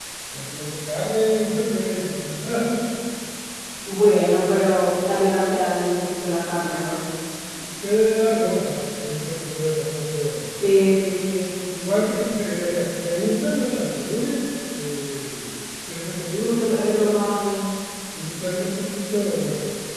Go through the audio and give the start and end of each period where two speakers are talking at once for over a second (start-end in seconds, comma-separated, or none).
none